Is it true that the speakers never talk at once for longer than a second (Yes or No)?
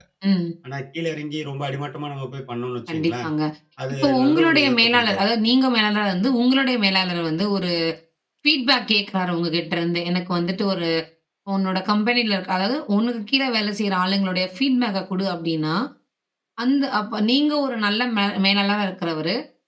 No